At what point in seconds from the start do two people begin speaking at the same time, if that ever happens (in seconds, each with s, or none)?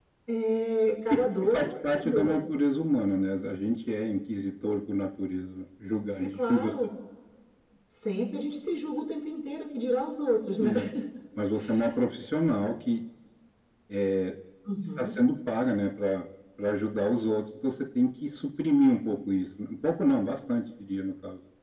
1.1 s